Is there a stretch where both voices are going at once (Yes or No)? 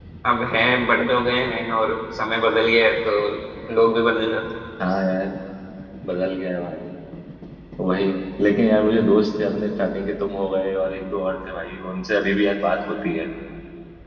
No